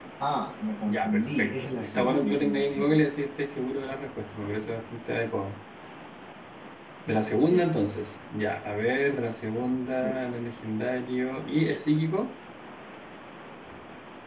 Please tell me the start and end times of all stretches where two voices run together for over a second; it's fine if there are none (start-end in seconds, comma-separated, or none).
0.9-3.0